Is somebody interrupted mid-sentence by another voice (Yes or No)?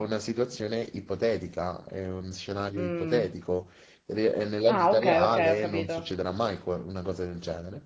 Yes